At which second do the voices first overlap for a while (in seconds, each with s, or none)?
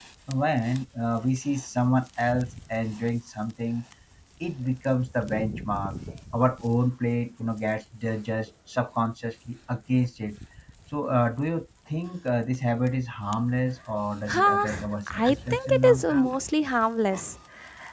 14.3 s